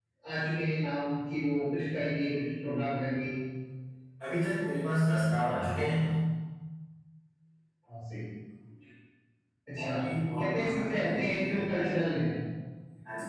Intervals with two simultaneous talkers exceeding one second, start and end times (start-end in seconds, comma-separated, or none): 10.4-11.6